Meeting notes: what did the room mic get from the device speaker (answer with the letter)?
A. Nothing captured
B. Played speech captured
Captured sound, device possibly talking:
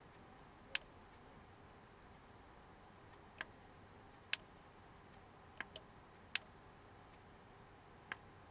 A